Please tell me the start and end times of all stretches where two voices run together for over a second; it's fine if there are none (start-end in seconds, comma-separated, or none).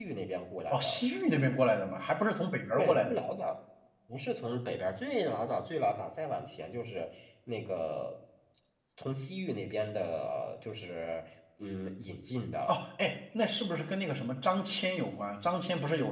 none